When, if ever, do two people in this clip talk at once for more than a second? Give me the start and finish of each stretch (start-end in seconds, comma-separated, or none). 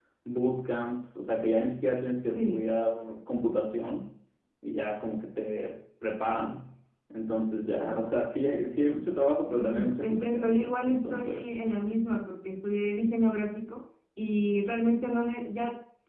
9.5-11.6